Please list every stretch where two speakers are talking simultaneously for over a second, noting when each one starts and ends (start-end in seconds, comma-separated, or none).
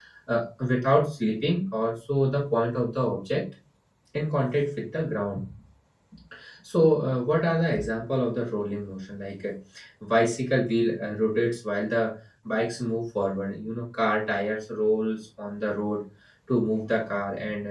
none